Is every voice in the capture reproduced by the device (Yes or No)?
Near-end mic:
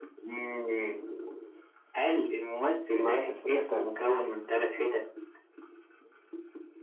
No